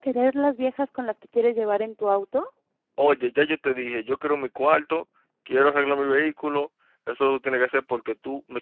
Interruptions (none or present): none